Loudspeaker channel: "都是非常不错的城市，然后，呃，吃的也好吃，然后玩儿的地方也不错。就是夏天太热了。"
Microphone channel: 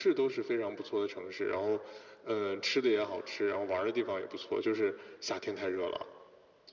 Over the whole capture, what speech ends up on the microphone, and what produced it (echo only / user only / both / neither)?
echo only